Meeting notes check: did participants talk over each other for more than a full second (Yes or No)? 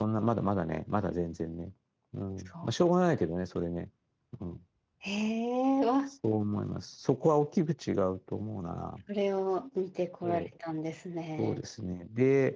No